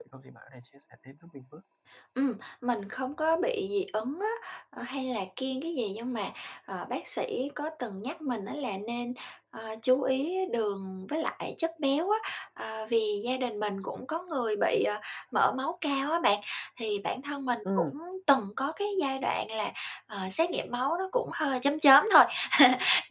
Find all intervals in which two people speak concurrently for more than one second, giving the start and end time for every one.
none

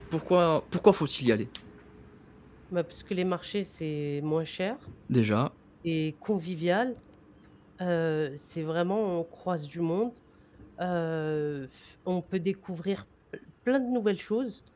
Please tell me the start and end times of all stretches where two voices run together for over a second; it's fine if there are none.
none

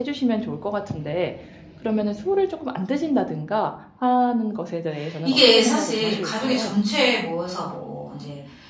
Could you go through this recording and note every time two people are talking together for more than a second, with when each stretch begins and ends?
5.2-6.7

